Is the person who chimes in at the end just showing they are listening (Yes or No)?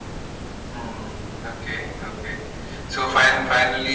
Yes